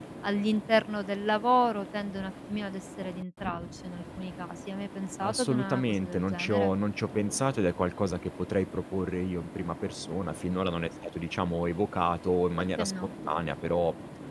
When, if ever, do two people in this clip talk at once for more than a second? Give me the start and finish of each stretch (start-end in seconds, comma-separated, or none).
5.2-6.7